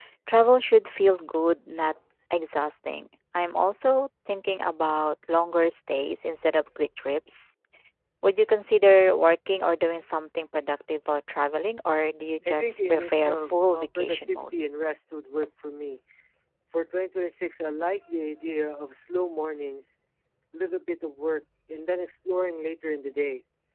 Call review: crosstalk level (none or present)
present